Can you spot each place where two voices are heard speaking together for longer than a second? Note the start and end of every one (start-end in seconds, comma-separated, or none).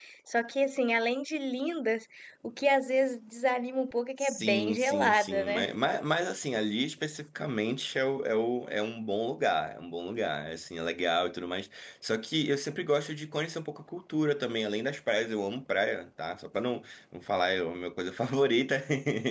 4.2-5.6